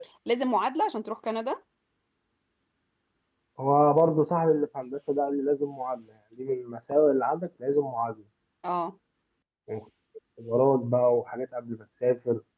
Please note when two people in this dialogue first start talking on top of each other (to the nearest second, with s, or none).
none